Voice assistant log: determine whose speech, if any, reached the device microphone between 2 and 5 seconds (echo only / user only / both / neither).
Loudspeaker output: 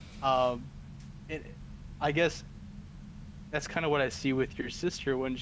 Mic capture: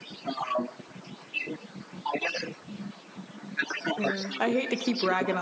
both